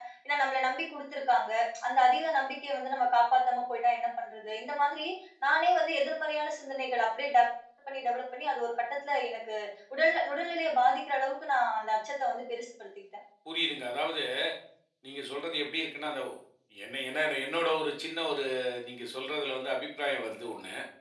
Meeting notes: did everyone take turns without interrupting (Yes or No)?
Yes